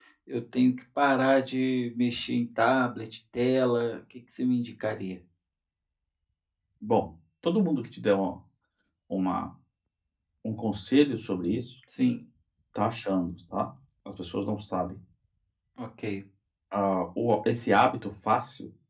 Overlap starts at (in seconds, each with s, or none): none